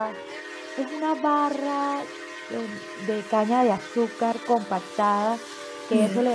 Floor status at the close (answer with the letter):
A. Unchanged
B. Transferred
A